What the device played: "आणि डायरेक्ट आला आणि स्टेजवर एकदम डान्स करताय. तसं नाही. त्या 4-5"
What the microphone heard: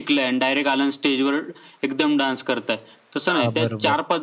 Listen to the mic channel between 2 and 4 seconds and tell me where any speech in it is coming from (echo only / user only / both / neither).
both